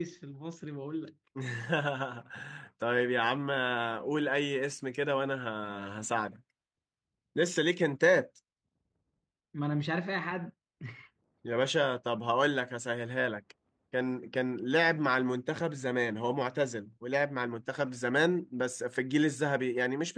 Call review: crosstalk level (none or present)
none